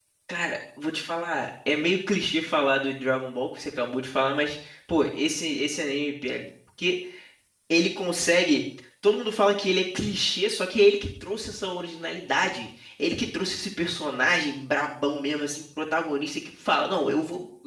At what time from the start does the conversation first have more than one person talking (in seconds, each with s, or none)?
none